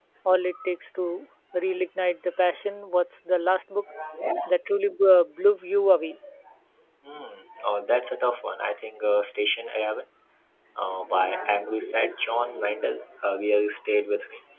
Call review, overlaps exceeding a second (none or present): none